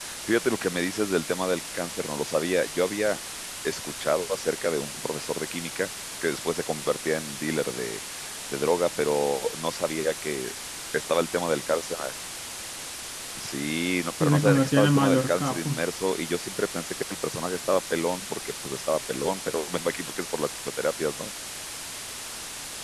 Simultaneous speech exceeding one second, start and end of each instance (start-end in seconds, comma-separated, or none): 14.2-15.8